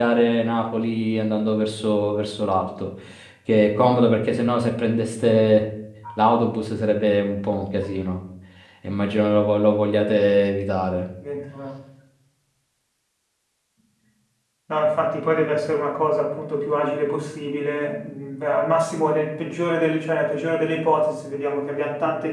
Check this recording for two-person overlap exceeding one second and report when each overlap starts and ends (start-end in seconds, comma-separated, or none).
none